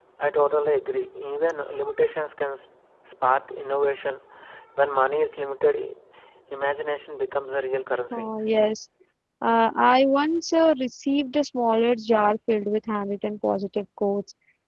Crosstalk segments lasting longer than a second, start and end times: none

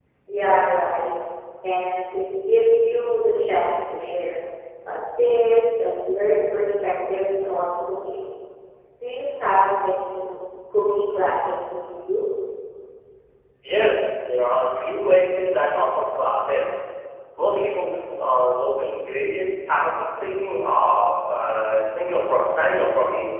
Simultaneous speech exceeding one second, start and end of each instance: none

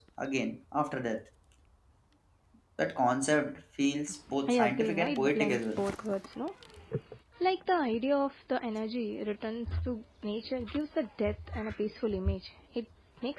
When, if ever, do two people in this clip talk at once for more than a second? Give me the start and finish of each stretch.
4.5-5.8

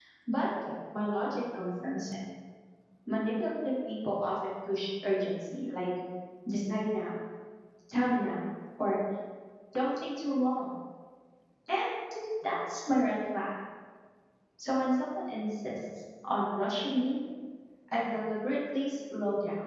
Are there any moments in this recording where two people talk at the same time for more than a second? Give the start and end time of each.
none

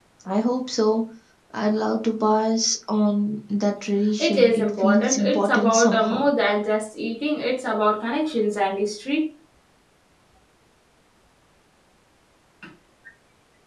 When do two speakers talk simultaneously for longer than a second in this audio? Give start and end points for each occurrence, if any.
4.2-6.2

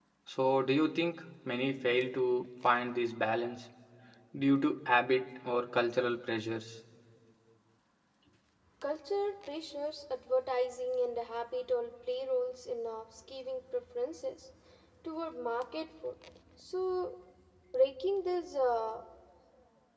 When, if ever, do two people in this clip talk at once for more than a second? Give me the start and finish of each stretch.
none

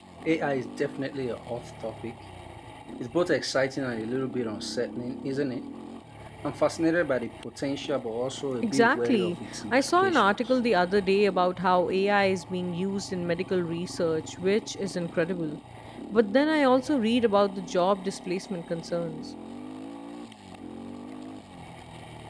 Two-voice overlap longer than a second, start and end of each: 8.6-10.5

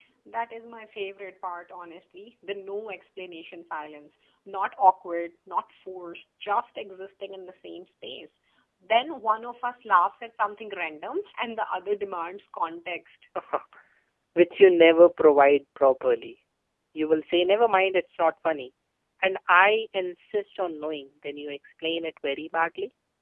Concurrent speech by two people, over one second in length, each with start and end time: none

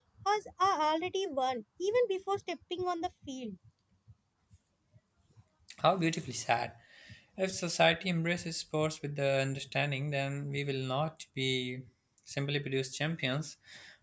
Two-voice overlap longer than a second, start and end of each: none

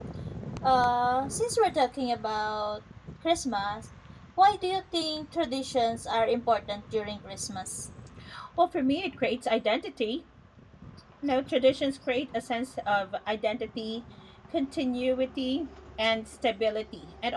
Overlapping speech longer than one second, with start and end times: none

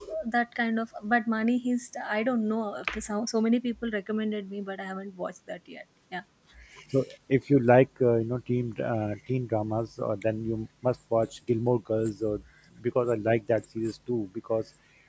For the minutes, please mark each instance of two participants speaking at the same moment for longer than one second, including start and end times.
none

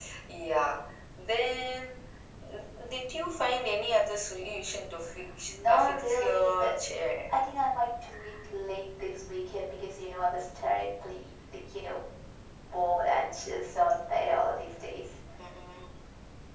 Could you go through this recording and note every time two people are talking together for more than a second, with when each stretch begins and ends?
5.5-6.8

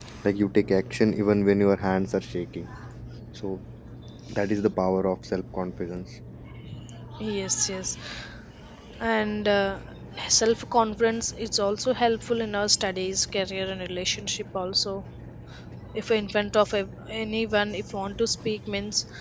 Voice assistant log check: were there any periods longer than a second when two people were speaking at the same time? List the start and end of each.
none

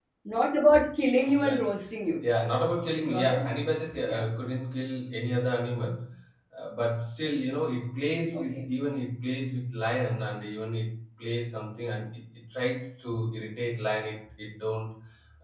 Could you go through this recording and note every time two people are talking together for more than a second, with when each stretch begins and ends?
none

